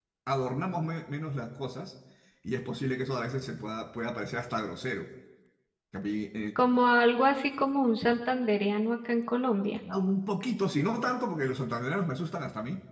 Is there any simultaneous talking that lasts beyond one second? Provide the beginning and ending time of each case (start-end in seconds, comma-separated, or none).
none